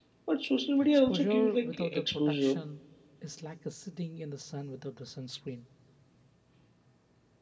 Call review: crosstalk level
present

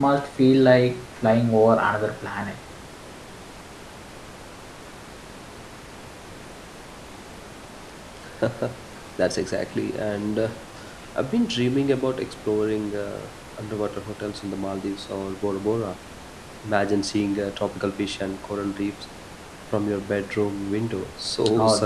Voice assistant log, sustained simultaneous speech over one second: none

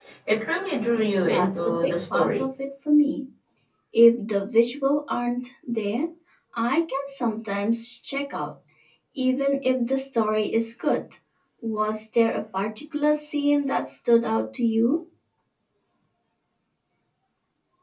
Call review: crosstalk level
present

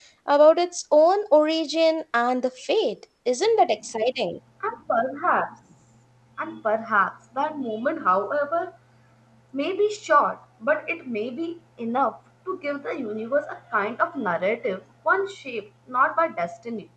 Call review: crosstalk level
none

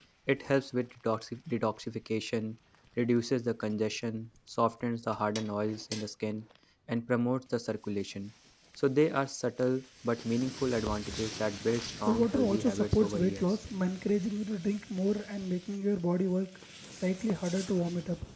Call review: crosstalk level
present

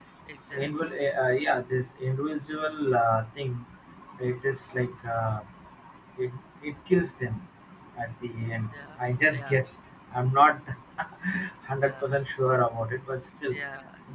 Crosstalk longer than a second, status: none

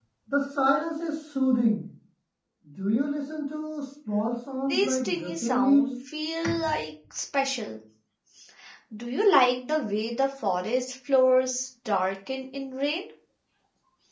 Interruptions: present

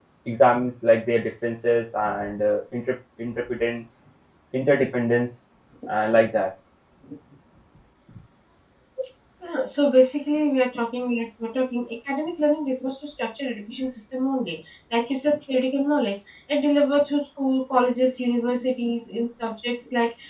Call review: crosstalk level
none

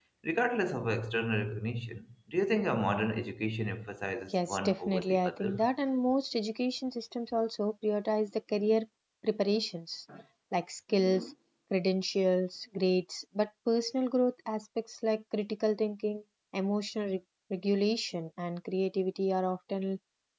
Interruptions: present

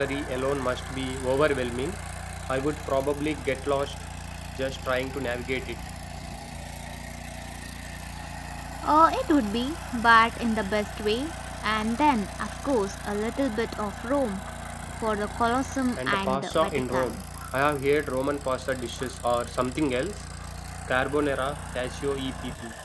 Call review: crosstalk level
present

